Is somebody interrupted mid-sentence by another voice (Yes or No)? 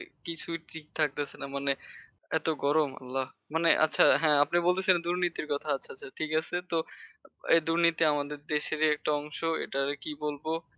No